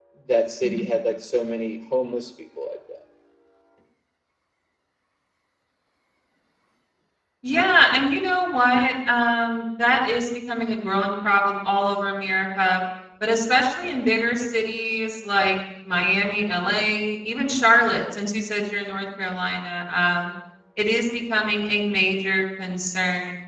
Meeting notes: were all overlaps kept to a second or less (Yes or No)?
Yes